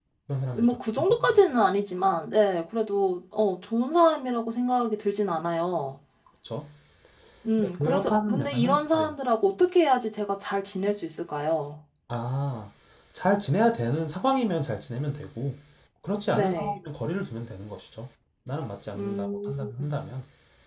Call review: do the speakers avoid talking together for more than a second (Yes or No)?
No